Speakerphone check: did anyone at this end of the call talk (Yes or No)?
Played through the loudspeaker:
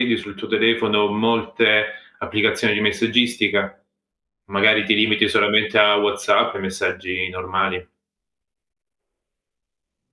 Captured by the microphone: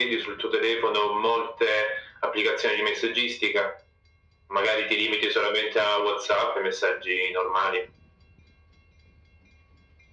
No